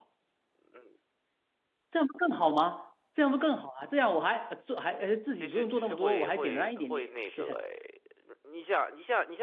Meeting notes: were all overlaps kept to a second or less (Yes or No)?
No